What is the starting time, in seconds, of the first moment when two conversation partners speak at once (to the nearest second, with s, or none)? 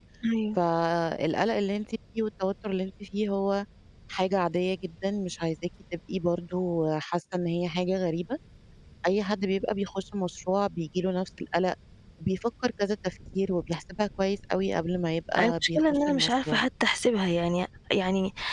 15 s